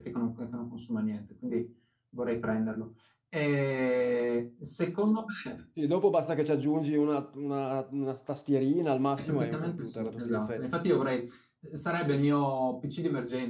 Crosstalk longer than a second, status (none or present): present